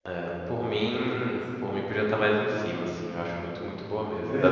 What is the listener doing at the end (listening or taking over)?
taking over